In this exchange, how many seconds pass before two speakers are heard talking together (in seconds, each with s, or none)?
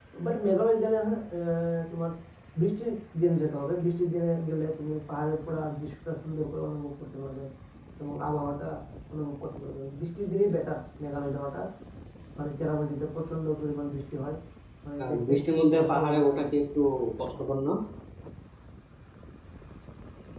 15.0 s